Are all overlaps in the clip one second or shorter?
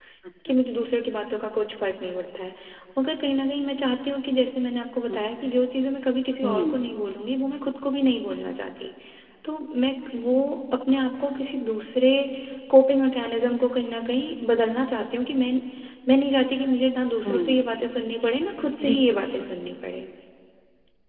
Yes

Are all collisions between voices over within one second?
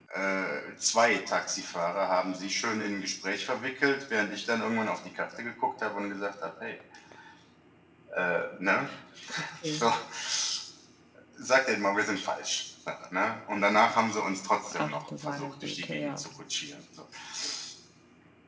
No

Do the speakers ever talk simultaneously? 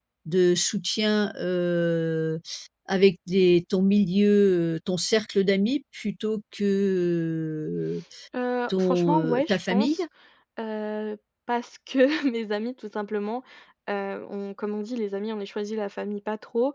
Yes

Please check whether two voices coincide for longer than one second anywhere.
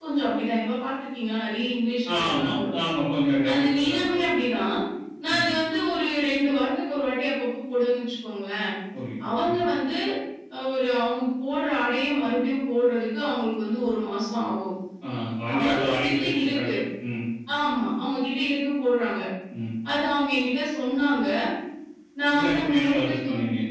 Yes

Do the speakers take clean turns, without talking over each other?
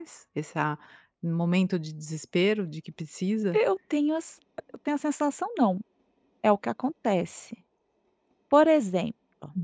Yes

